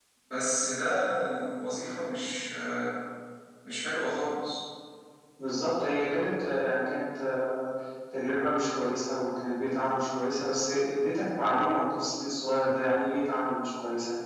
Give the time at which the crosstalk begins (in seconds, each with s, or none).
none